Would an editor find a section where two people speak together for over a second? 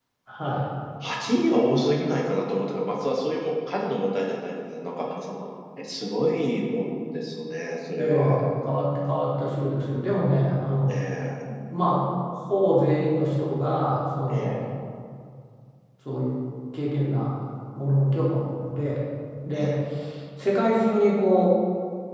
No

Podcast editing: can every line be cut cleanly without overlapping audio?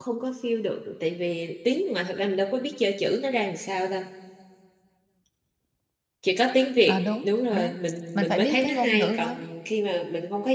No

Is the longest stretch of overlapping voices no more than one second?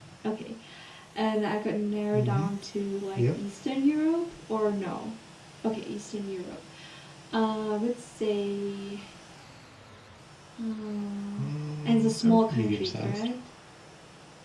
No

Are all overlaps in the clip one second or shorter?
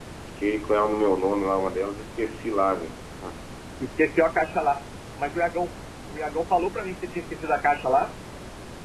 Yes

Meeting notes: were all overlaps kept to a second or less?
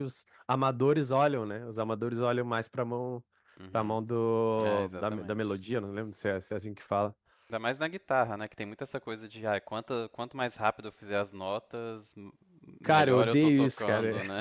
No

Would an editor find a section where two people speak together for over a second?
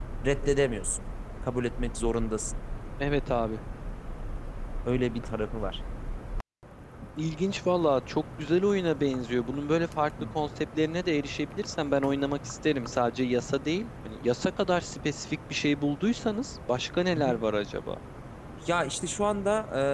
No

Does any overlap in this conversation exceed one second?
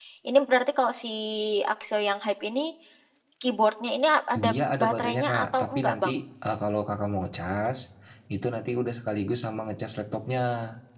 Yes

